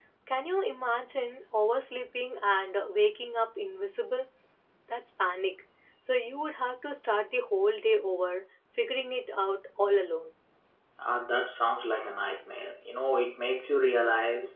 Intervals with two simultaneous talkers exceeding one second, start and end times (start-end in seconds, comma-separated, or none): none